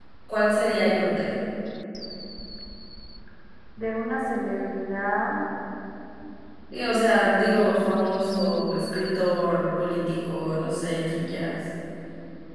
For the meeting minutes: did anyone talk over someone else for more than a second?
No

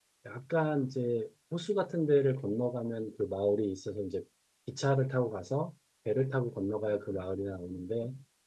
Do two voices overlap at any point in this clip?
No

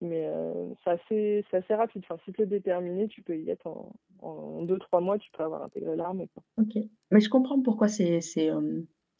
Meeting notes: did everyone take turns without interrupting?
Yes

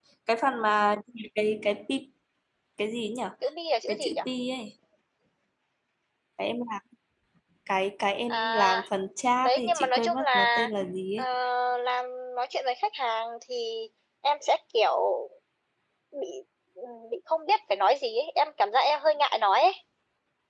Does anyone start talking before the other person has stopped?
Yes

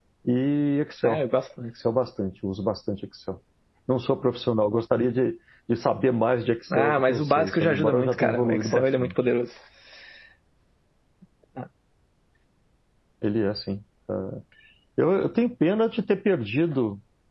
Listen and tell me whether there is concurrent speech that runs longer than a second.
Yes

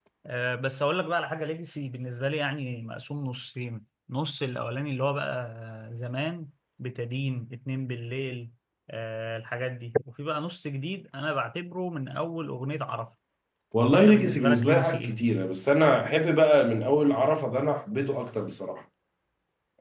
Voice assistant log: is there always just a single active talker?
No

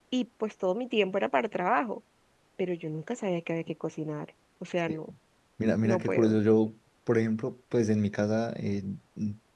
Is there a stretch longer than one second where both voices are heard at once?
No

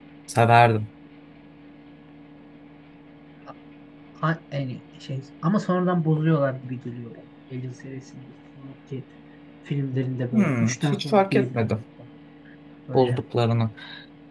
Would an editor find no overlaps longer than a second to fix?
No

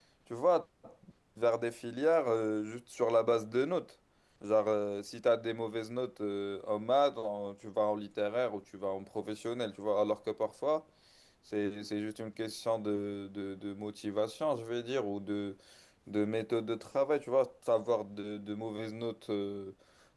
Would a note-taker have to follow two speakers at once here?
No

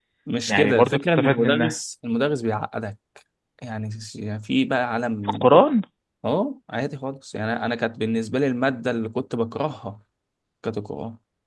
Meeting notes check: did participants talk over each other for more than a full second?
Yes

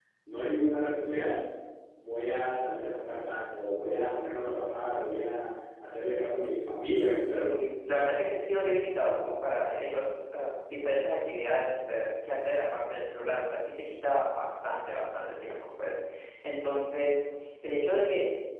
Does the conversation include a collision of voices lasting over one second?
No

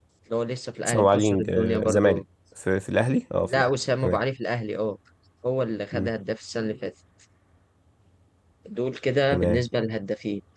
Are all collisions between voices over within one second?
No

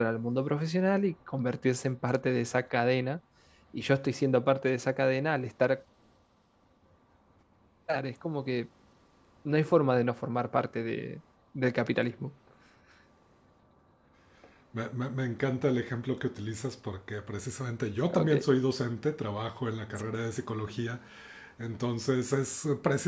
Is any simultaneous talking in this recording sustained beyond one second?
No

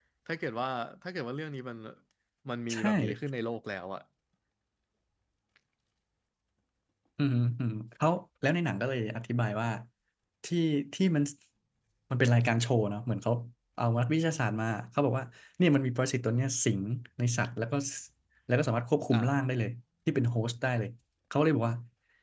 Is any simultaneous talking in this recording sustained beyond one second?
No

